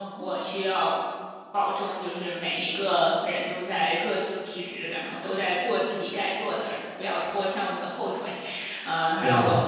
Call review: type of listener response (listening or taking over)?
listening